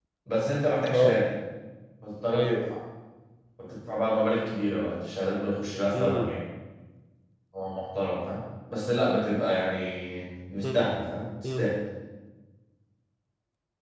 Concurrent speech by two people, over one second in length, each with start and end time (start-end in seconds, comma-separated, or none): none